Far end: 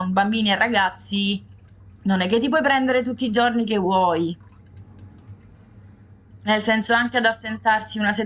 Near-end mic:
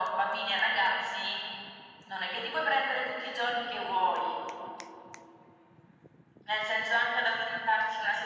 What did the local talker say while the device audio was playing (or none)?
none